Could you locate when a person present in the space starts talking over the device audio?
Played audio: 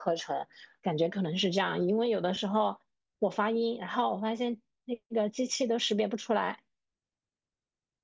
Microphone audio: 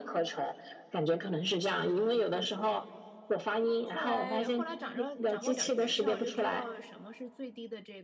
3.8 s

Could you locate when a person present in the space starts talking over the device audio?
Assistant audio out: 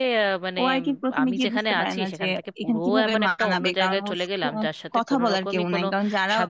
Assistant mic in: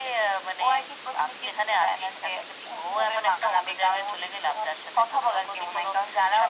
none

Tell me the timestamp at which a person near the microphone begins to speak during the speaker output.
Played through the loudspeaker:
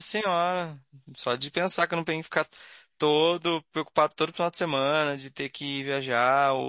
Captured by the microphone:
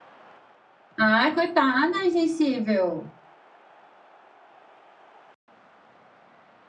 1.0 s

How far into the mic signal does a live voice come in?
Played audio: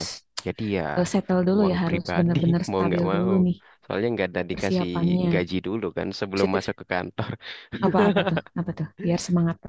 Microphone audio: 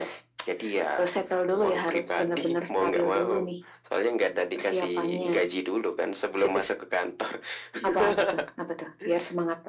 none

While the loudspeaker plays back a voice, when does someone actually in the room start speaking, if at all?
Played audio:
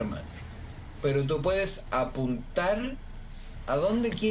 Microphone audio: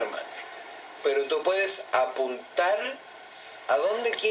none

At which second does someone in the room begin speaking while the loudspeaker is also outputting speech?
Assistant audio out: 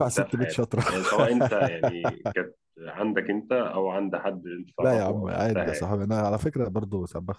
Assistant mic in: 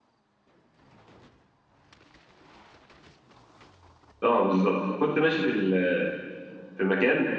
4.2 s

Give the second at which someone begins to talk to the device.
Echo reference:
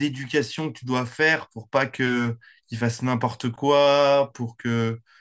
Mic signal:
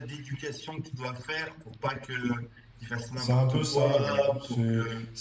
3.1 s

